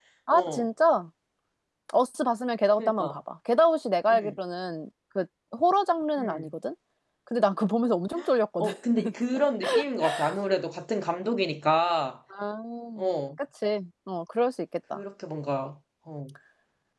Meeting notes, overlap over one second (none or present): none